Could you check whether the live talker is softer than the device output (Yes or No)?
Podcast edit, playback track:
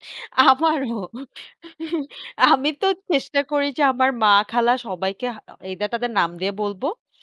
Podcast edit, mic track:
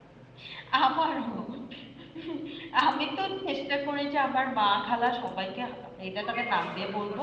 Yes